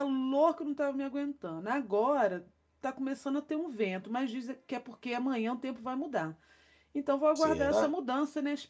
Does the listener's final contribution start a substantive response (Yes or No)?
No